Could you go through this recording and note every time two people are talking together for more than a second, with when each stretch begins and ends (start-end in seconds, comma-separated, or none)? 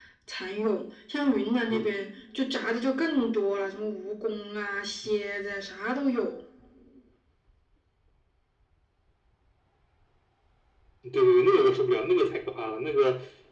none